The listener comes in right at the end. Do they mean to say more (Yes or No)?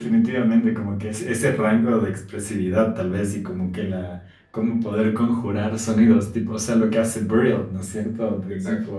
No